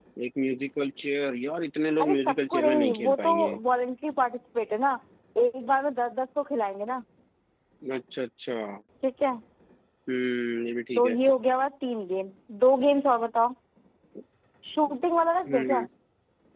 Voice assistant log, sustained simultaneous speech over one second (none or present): present